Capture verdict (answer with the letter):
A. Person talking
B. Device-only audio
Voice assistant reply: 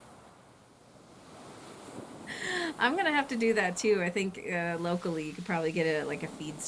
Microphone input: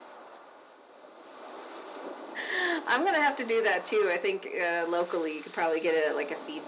B